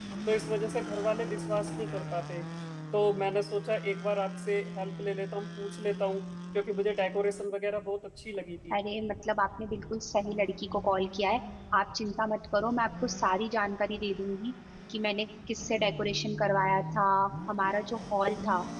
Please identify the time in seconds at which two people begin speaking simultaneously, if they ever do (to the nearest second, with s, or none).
none